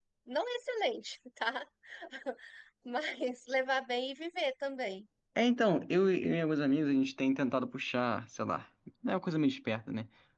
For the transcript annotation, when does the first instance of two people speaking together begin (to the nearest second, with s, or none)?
none